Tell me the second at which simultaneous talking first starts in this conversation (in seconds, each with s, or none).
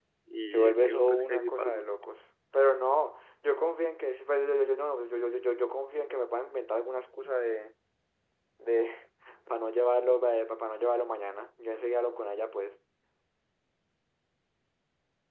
0.5 s